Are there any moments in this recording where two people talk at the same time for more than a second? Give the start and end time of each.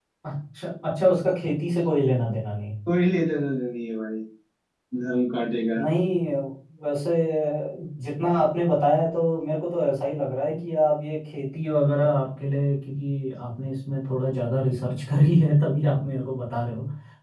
none

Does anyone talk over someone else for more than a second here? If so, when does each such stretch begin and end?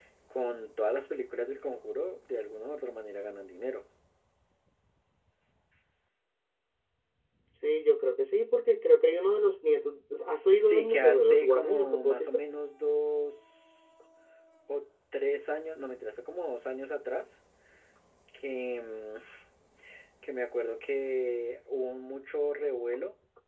10.3-12.3

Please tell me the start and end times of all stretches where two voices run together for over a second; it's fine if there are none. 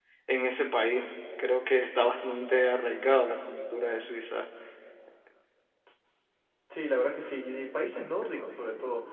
none

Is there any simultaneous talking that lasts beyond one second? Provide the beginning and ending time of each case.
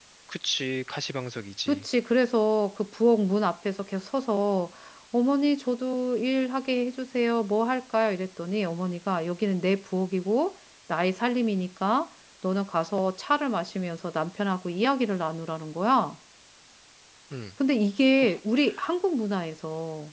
none

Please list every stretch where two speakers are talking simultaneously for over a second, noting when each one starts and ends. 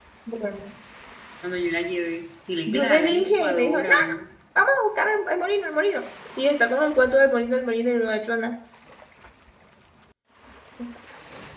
2.7-3.9

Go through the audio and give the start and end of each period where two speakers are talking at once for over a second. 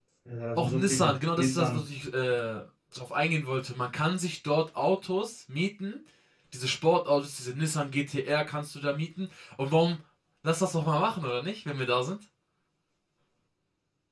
0.5-1.8

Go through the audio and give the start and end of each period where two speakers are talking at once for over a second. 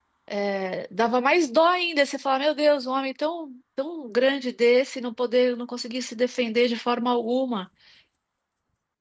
none

